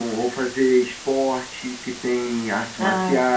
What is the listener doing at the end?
listening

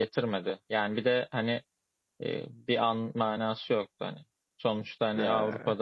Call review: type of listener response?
listening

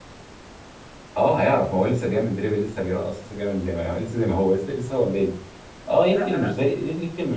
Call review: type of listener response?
listening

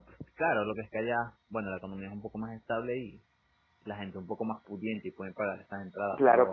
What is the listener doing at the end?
taking over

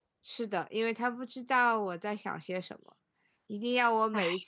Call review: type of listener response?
listening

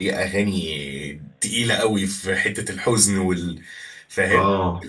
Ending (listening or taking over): taking over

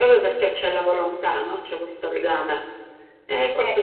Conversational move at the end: taking over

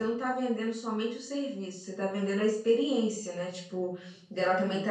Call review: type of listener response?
listening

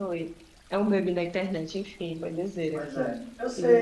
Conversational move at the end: taking over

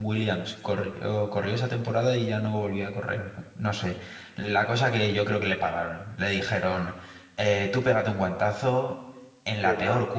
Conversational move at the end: listening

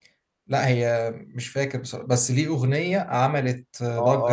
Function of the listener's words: taking over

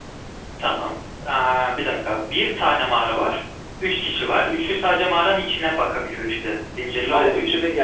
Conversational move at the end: taking over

